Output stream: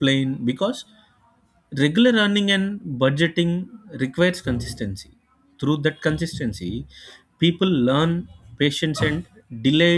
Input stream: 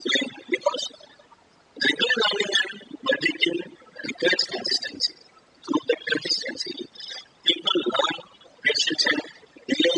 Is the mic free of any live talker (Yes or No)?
Yes